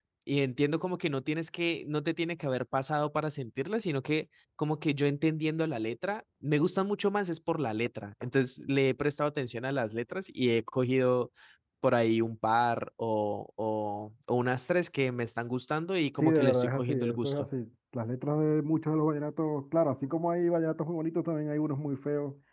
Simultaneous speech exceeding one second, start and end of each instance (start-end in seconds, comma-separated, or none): 16.2-17.5